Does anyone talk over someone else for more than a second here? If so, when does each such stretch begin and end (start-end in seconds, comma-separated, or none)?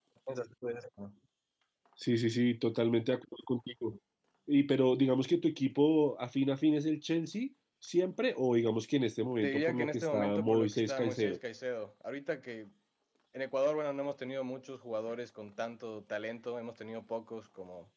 9.4-11.4